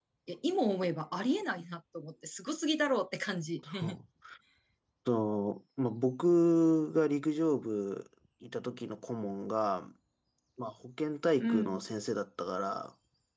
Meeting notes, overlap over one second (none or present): none